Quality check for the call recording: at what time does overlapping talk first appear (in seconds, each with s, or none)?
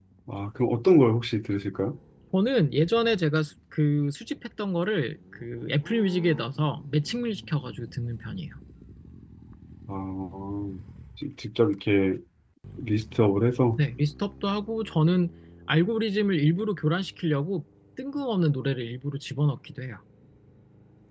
none